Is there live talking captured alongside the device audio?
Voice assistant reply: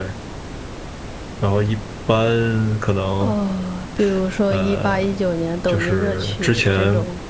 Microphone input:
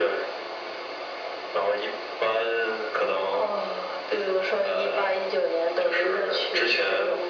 No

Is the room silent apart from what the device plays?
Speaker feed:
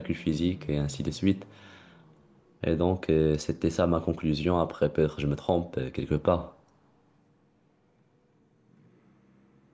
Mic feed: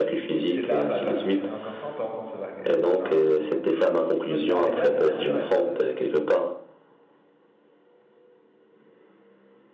No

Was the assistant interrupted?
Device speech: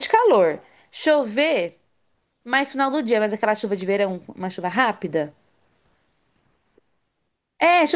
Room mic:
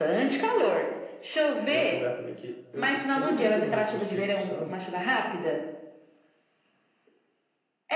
Yes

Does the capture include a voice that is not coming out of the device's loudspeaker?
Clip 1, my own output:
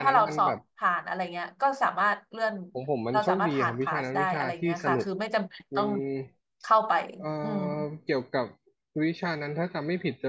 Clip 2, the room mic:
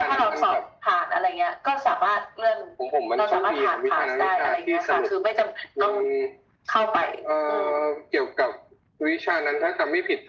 No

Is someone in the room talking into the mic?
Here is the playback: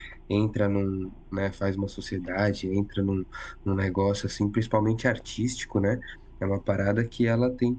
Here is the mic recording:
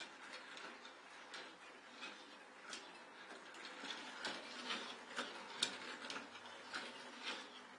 No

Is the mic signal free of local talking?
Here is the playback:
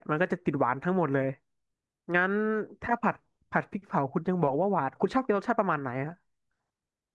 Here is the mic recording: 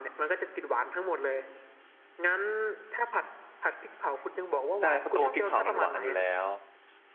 No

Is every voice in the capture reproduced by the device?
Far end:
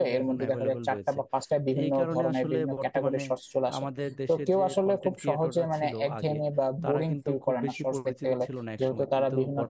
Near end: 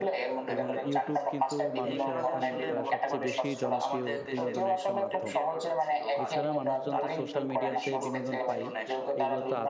No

